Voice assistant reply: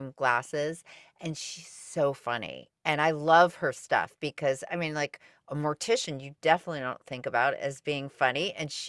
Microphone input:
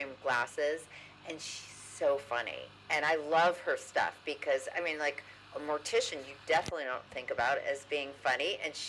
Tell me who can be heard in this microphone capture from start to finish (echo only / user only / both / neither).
echo only